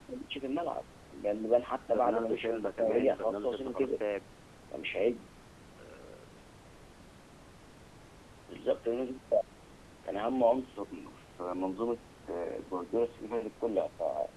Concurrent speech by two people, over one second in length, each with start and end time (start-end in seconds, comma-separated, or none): 1.9-3.9